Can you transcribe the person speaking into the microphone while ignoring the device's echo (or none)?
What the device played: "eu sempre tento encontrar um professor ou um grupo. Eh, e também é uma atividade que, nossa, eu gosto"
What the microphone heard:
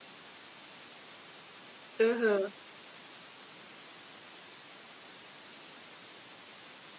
Aham.